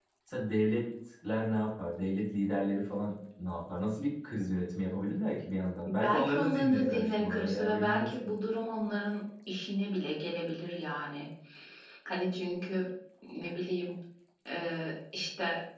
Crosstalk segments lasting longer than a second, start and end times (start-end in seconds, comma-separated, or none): 5.9-8.1